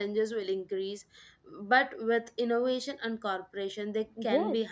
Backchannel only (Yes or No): No